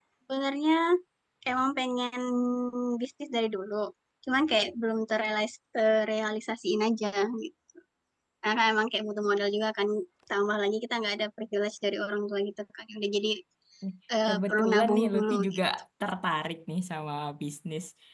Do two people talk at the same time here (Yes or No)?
Yes